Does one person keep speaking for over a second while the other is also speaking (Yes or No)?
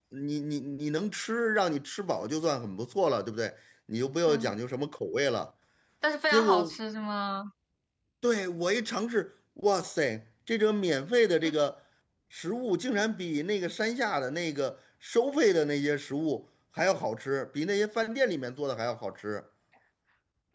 No